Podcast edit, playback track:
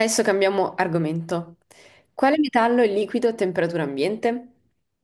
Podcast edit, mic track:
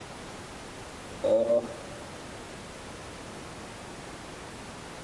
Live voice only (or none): Ah,